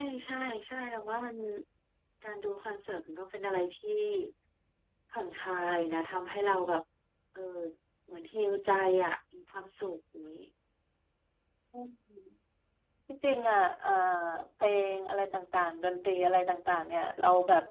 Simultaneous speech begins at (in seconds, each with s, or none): none